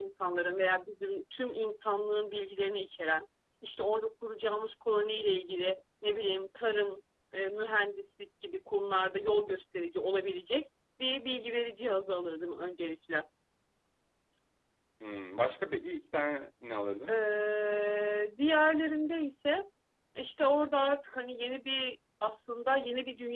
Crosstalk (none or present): none